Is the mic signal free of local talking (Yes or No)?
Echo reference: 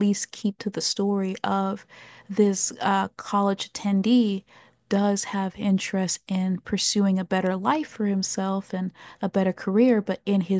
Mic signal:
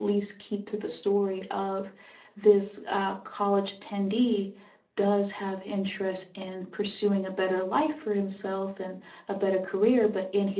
Yes